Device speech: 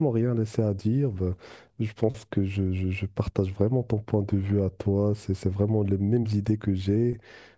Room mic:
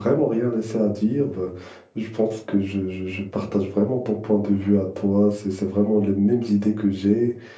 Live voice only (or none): none